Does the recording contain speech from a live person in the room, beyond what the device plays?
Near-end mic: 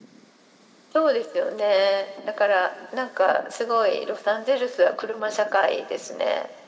No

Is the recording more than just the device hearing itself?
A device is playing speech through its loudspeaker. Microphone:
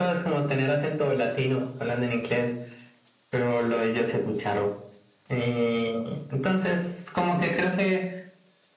No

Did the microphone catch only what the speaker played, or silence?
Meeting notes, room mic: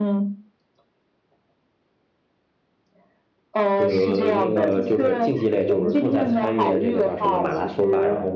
No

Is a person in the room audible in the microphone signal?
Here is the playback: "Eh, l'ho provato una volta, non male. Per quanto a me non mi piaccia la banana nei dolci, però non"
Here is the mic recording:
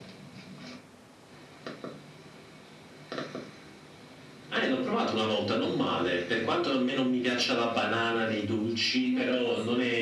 Yes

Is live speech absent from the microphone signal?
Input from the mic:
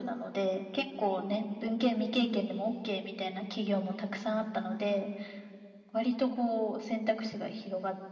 Yes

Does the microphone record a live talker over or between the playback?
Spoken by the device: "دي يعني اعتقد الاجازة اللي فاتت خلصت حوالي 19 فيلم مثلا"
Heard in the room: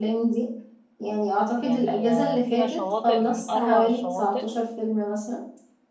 Yes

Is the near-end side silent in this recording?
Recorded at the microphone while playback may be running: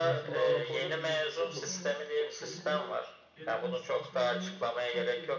No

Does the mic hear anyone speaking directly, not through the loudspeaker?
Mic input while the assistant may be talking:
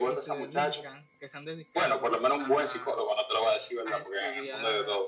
Yes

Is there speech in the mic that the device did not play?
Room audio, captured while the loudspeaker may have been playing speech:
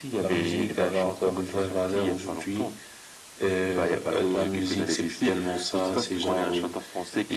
No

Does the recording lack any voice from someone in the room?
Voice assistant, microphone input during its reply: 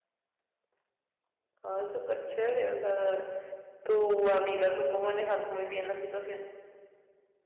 No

